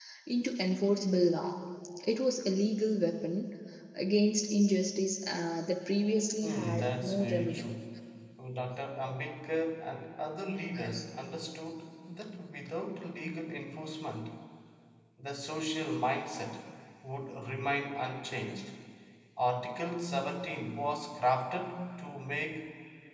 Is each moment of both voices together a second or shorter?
No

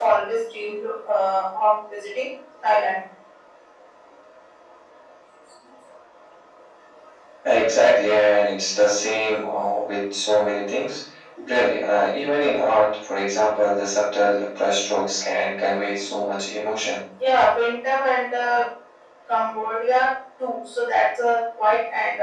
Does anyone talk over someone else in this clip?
No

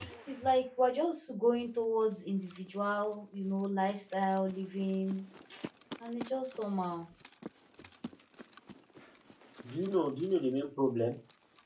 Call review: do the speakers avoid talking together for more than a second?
Yes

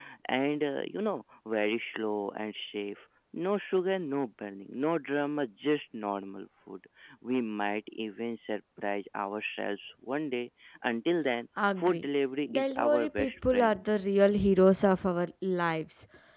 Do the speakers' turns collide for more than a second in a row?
Yes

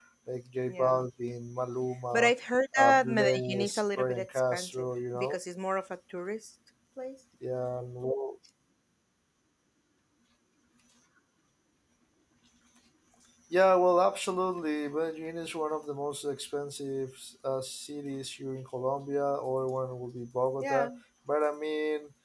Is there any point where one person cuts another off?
Yes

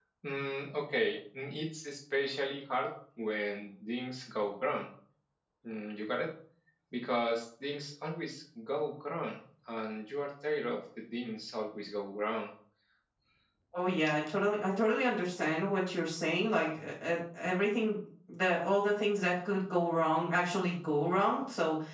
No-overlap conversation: Yes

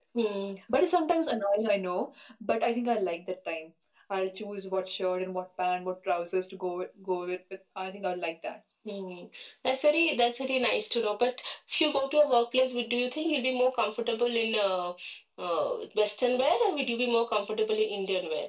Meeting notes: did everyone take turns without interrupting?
Yes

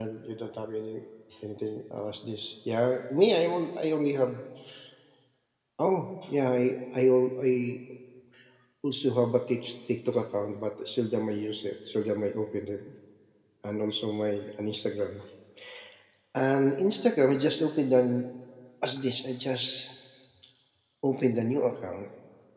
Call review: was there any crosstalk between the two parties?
No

